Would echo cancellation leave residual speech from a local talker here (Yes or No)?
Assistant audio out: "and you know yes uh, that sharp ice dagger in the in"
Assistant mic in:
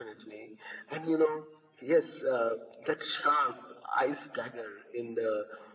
No